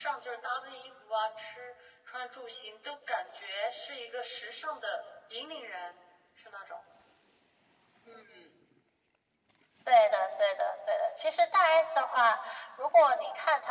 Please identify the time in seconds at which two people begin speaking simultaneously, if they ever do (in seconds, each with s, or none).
none